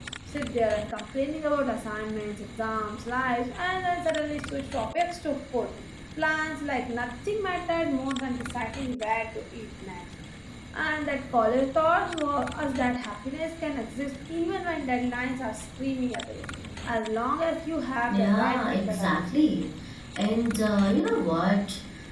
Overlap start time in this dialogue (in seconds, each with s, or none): 18.1 s